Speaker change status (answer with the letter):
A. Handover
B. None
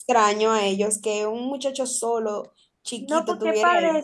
A